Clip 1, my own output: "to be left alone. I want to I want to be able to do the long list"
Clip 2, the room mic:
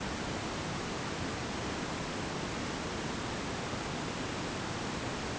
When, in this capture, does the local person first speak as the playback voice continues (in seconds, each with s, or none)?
none